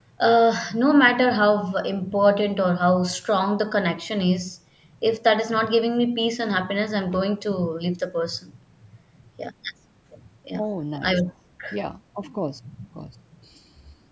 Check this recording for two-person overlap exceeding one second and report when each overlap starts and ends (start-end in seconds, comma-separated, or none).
none